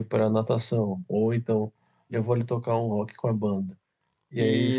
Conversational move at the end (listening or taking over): listening